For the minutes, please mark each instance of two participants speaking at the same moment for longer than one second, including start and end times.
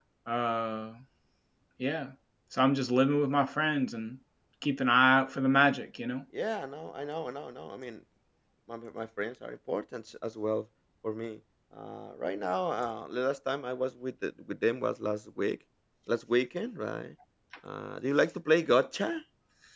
none

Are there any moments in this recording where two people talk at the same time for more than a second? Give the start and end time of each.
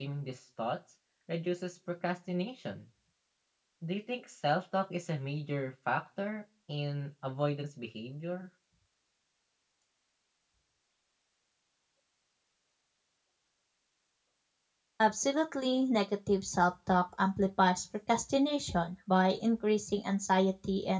none

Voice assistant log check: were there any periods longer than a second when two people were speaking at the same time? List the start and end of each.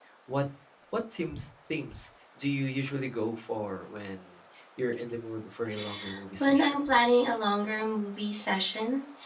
none

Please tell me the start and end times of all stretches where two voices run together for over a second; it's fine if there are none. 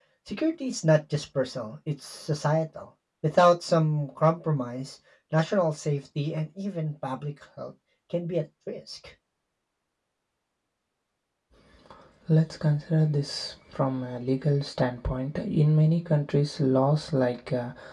none

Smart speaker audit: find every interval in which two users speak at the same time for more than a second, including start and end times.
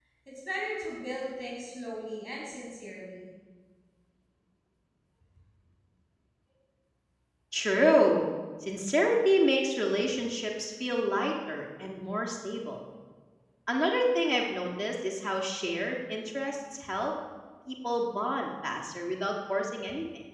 none

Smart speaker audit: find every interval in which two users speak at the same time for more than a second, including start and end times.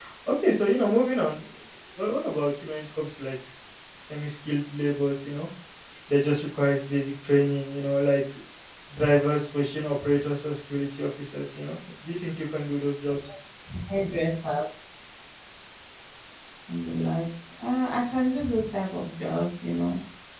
none

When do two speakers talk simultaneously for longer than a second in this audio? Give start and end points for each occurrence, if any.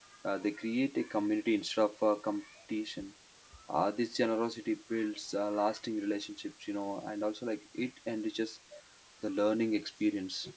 none

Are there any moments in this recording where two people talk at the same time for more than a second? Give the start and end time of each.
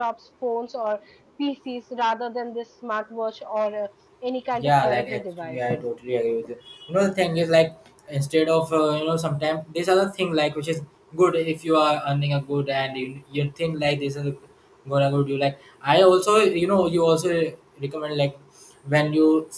4.6-5.8

